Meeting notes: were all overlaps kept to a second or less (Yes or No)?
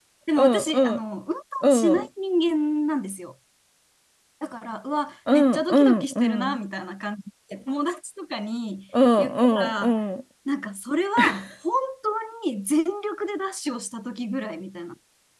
No